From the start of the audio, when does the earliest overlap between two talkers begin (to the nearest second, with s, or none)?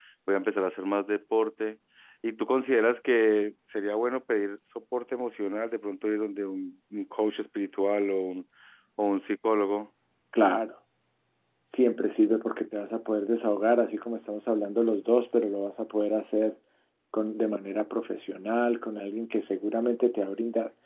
none